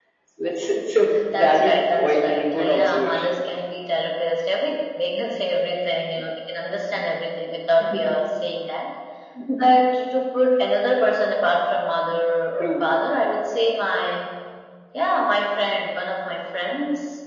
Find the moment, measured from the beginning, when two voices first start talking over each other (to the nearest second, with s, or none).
1 s